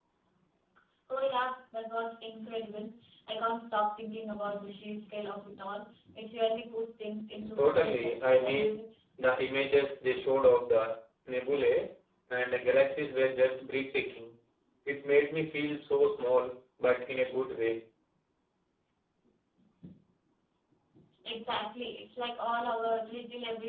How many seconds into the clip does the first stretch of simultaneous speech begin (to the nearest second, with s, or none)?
8 s